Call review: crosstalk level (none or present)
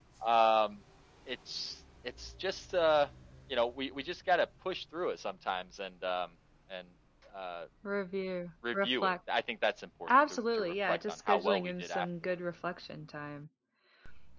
present